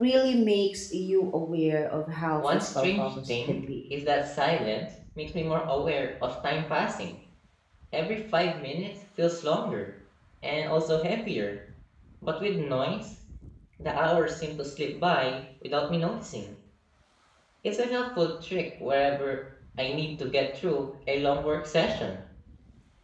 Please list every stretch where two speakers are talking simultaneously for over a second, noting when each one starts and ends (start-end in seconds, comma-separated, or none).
2.4-3.6